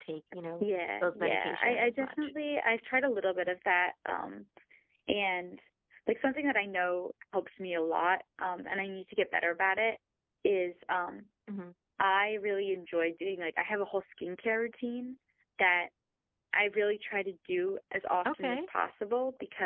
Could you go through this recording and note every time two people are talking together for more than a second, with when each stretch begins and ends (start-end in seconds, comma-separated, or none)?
1.0-2.3